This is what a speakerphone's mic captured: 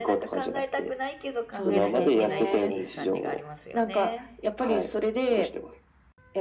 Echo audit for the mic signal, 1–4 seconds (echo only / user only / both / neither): both